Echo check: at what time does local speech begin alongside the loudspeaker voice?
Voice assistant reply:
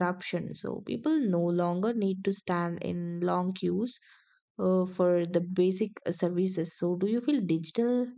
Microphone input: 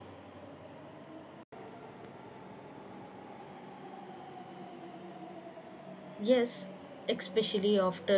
6.2 s

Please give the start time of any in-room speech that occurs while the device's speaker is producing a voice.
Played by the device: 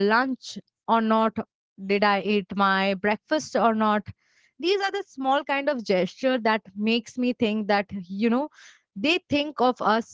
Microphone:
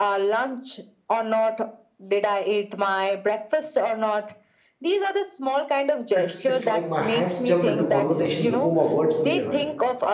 6.2 s

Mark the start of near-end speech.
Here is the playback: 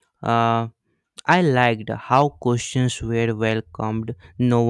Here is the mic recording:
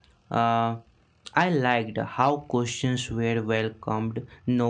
none

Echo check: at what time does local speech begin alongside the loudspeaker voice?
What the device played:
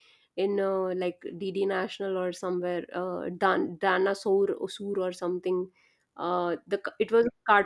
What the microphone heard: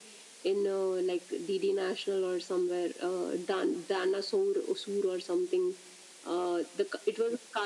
none

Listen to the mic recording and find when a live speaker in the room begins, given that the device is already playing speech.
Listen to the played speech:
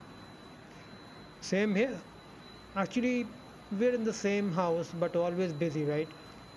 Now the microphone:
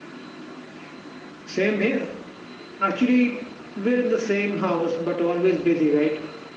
none

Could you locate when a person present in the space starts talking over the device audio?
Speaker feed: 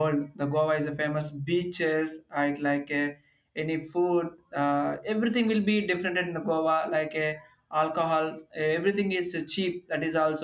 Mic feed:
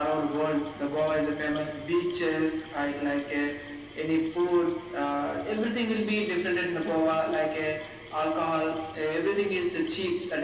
none

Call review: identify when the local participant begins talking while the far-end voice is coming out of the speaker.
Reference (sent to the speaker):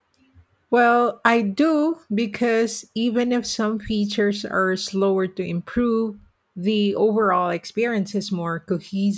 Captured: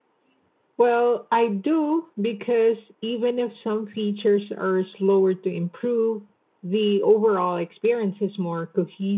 none

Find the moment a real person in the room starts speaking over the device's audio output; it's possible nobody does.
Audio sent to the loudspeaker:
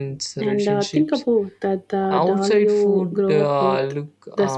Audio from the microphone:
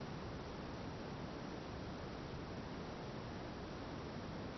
none

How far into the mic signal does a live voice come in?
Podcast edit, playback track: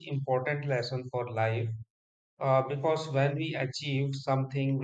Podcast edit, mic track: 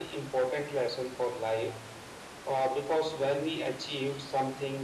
none

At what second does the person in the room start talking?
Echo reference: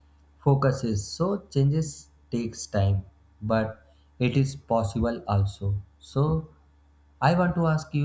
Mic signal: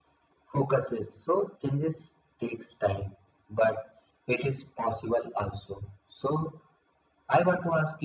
none

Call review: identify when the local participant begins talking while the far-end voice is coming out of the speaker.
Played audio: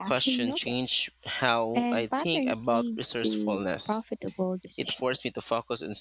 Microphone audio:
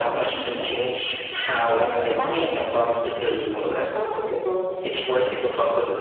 none

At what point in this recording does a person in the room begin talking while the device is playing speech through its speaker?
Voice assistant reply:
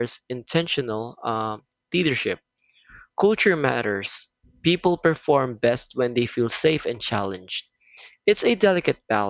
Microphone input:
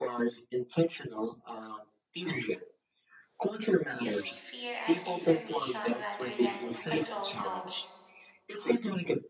4.0 s

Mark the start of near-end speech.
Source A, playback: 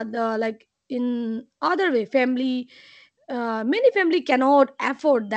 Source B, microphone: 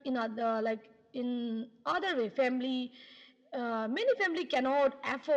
none

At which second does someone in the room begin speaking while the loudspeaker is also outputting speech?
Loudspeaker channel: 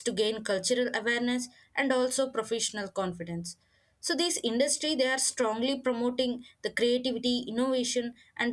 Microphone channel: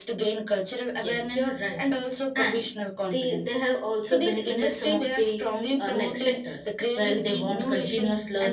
1.0 s

